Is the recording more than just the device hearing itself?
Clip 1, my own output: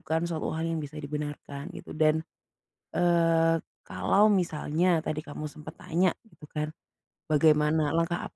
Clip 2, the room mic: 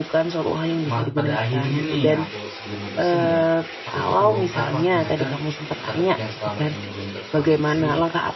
Yes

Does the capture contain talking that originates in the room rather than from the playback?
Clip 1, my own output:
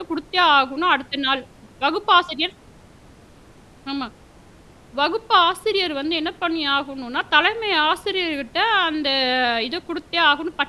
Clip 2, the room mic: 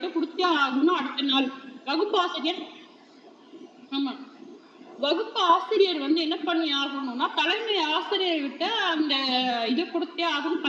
No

